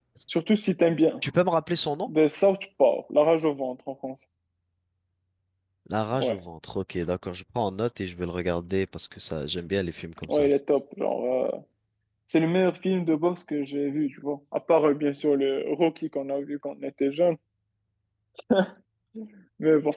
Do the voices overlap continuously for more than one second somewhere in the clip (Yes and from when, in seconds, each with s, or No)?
No